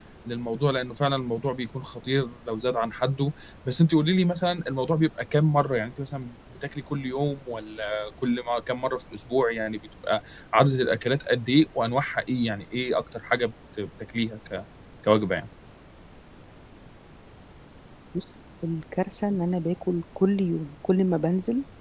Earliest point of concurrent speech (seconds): none

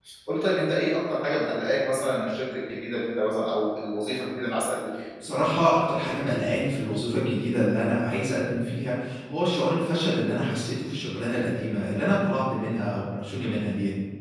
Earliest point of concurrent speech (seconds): none

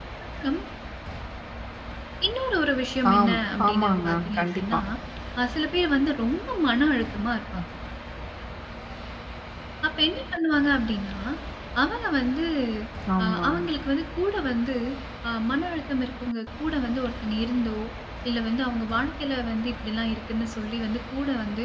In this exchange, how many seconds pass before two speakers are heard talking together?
3 s

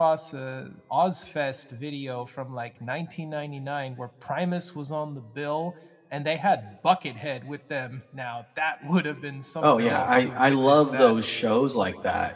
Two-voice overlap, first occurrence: 10 s

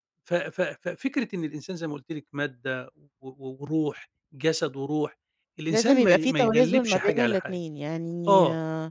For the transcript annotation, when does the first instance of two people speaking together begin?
6 s

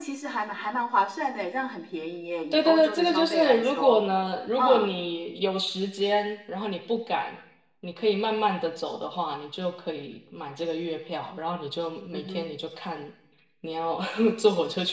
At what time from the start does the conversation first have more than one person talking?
3 s

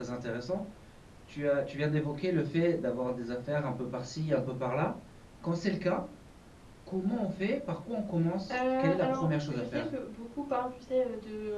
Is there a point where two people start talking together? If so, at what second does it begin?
8 s

